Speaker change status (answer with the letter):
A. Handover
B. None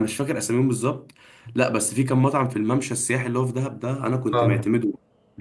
B